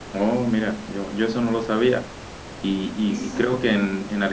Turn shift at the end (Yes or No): No